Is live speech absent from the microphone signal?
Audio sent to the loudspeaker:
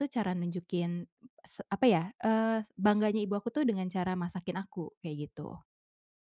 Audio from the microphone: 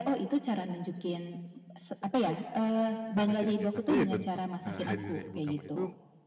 No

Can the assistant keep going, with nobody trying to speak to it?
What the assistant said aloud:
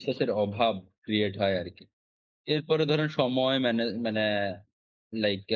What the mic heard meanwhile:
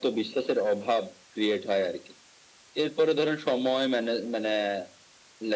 Yes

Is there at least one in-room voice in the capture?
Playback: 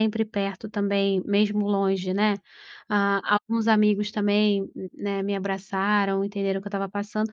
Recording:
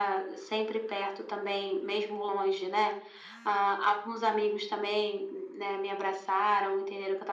No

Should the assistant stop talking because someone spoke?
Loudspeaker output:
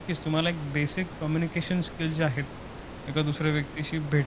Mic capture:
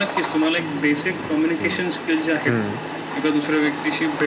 Yes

